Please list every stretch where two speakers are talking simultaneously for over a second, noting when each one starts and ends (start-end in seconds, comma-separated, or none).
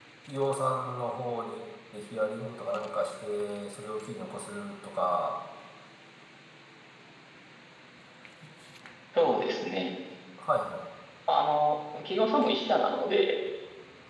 none